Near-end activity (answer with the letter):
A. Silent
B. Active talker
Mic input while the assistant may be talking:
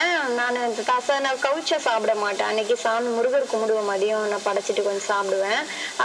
A